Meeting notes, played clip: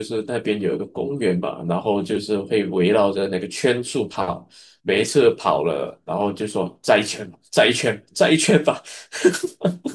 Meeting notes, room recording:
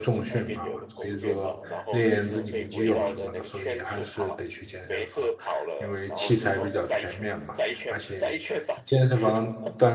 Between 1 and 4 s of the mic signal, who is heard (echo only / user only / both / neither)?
both